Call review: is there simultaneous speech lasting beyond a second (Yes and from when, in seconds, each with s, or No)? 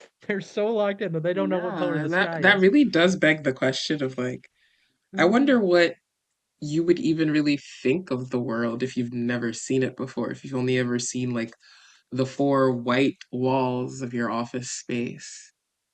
Yes, from 1.3 s